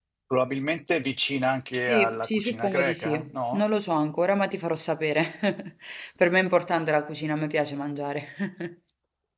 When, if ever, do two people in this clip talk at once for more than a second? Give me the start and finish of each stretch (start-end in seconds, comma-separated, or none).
1.8-3.6